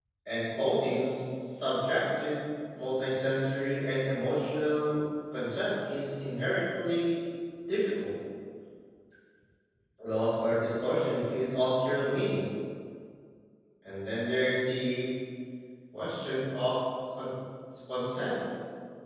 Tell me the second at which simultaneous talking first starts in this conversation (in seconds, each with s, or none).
none